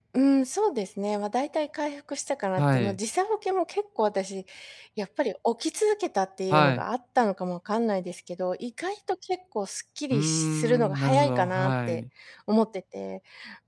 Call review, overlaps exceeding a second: present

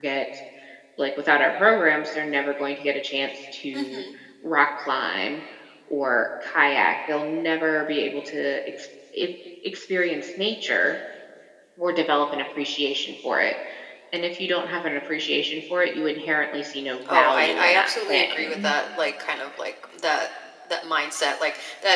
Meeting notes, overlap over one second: present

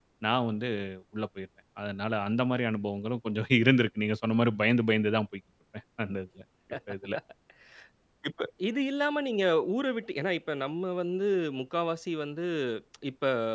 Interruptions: none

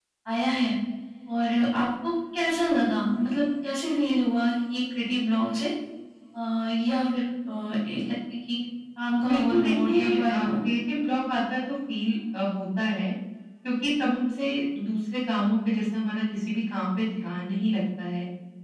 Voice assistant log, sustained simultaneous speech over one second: present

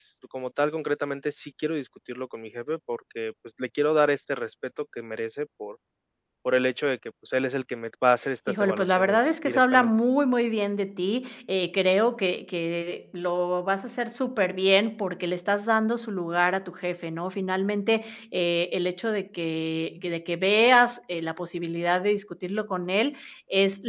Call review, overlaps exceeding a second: present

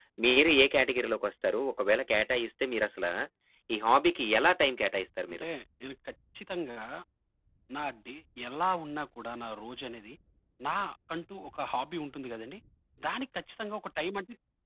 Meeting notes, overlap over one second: none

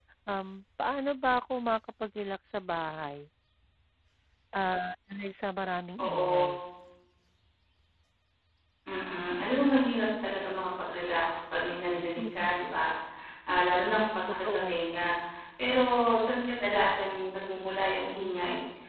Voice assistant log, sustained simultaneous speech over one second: none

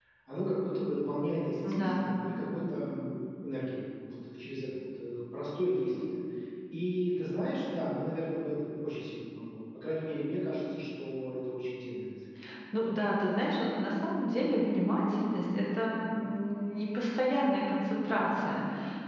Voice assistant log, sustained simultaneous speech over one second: none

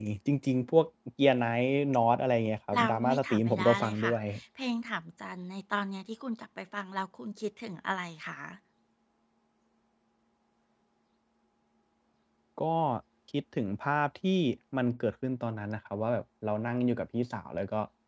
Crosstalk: present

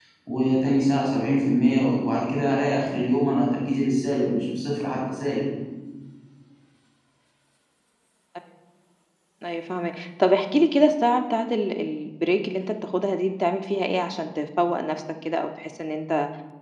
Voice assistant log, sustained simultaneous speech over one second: none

